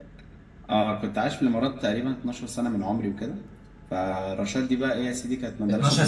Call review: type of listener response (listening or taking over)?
taking over